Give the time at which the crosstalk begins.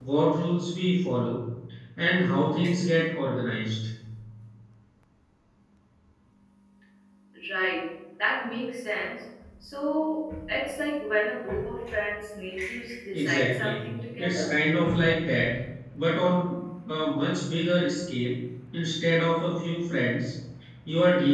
13.1 s

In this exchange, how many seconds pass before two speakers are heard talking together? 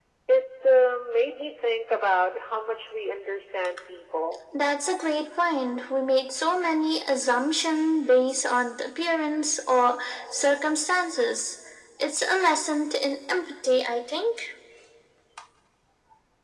none

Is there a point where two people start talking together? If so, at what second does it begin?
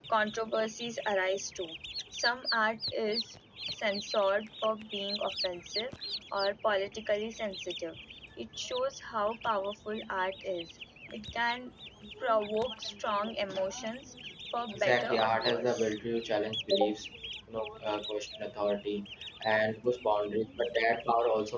14.7 s

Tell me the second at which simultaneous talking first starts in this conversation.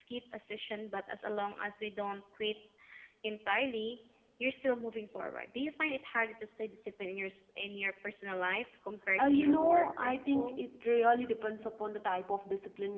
9.2 s

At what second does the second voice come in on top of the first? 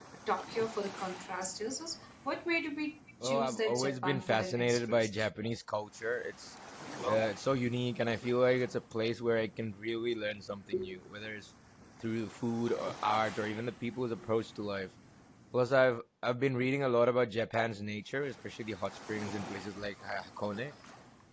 3.2 s

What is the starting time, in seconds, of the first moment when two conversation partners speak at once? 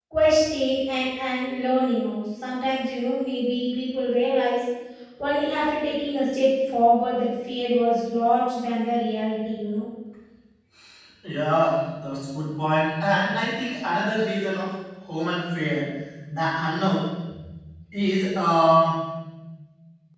none

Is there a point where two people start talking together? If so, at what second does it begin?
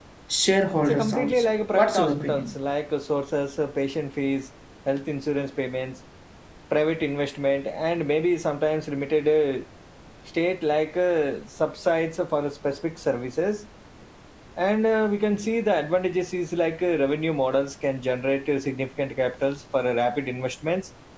0.9 s

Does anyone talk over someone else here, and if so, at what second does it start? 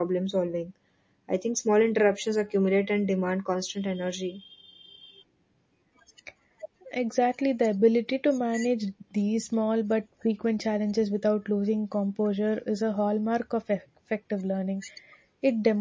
none

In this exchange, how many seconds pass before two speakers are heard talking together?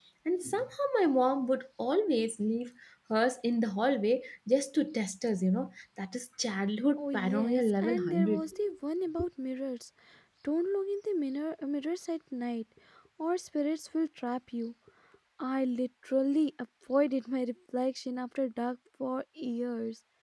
7.0 s

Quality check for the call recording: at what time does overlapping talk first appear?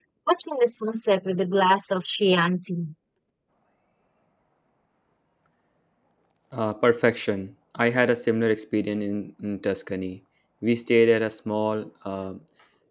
none

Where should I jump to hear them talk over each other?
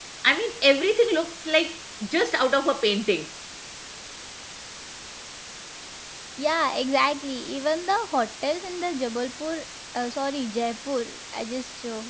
none

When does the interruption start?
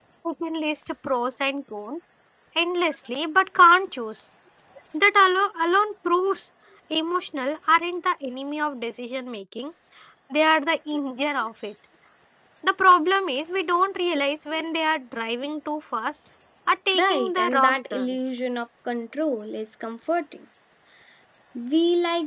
17.0 s

